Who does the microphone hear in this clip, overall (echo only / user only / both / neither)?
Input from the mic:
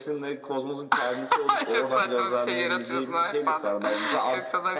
echo only